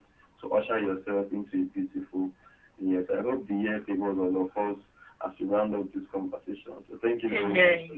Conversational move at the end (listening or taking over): taking over